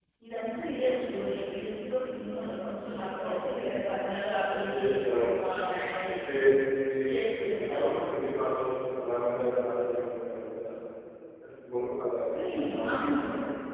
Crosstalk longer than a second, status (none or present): none